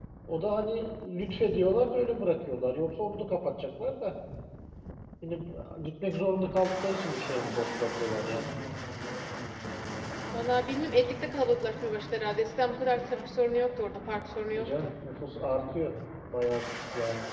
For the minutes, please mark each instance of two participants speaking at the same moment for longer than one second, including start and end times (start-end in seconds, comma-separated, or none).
none